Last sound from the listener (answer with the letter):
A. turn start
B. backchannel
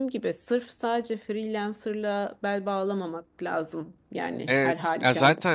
A